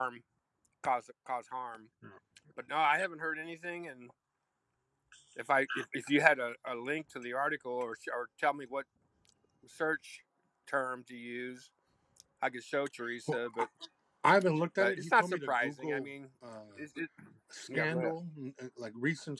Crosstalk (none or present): present